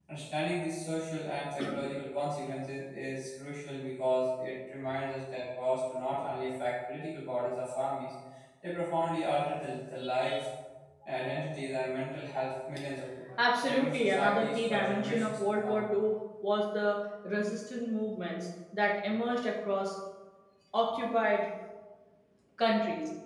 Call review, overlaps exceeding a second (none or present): present